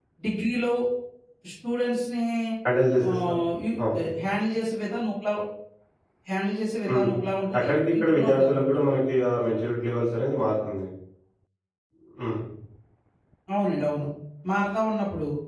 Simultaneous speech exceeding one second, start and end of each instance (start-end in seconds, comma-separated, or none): 7.6-8.9